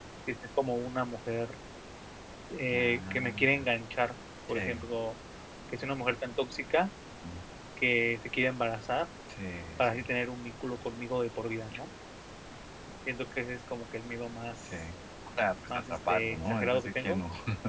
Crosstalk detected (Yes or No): Yes